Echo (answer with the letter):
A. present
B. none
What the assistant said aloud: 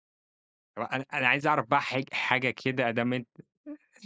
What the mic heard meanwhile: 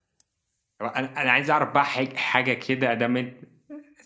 A